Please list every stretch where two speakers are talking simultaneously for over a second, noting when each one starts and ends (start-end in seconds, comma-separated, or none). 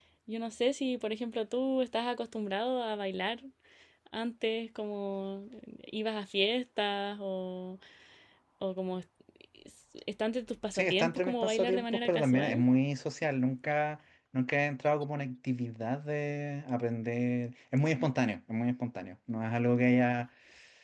10.7-12.6